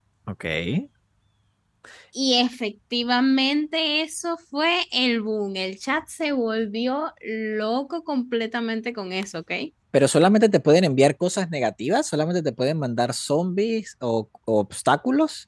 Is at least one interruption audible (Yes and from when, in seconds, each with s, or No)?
No